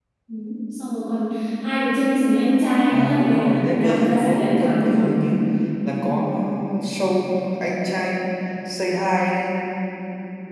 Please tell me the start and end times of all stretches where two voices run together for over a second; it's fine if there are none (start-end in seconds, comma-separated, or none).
2.9-5.2